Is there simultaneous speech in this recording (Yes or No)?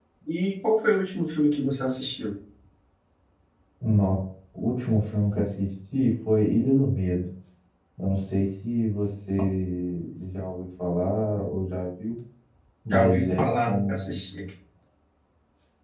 Yes